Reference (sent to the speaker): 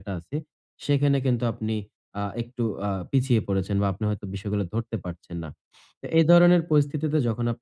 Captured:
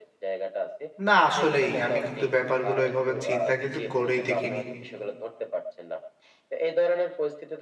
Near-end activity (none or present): present